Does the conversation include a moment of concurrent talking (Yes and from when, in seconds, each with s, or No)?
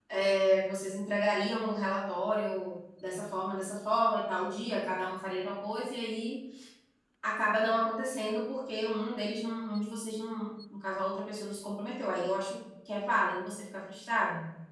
No